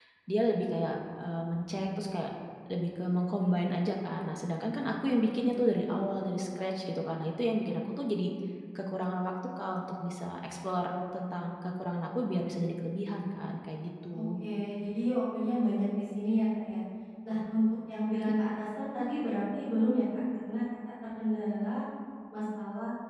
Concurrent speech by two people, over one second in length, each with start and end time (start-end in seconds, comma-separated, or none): none